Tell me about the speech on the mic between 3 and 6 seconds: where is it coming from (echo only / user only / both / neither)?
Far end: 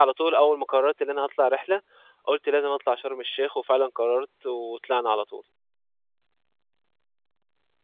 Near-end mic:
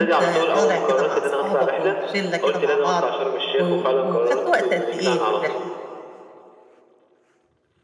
both